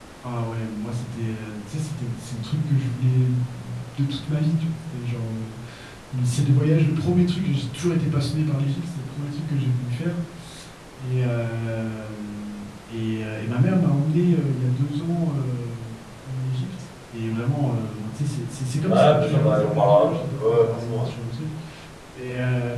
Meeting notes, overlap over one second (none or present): present